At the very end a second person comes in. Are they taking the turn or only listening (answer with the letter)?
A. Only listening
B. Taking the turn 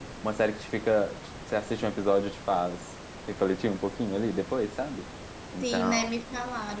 B